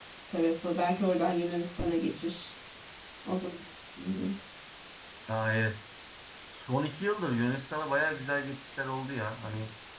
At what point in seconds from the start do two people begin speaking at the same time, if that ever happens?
none

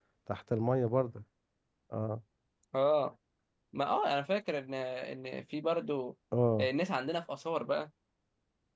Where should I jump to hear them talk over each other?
none

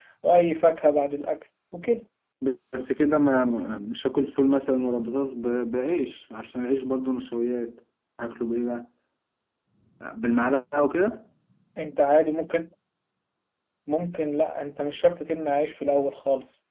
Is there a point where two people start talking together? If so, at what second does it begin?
none

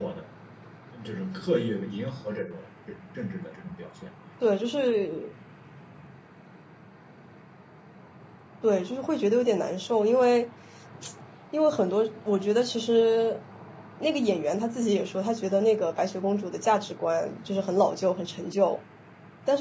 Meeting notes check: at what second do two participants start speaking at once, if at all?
none

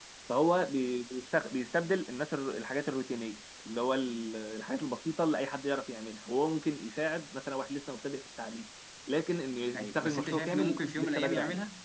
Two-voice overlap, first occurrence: 10 s

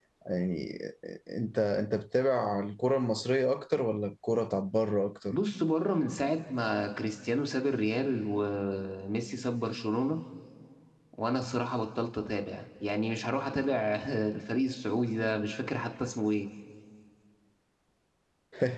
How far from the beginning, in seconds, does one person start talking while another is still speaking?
none

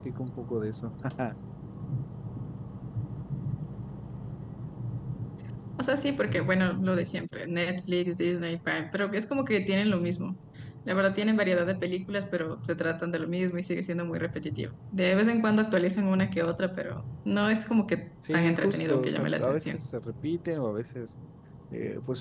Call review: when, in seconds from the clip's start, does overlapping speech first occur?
18 s

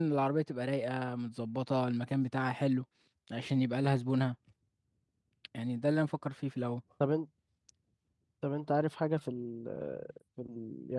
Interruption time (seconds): none

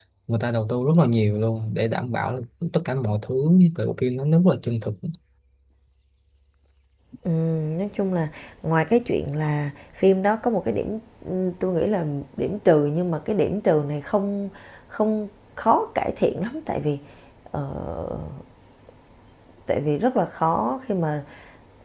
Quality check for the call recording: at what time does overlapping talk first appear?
none

